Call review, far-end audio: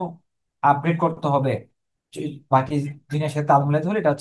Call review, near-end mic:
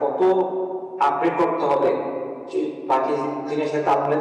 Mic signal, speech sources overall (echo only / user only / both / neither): echo only